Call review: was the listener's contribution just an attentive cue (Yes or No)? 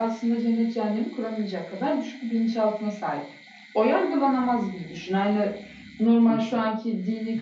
Yes